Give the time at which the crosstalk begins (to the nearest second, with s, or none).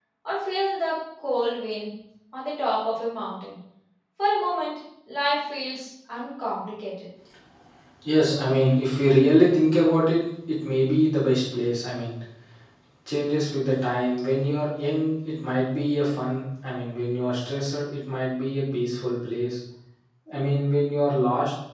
none